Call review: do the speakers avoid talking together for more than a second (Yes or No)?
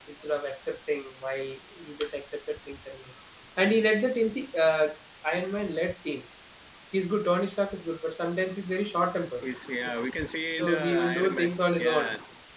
No